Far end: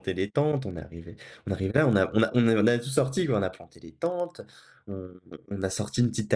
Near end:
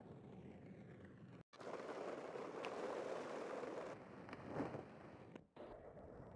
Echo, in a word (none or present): none